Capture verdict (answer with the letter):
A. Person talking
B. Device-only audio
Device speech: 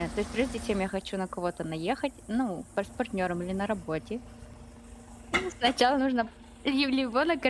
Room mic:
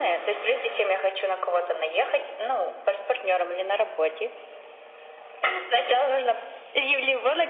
B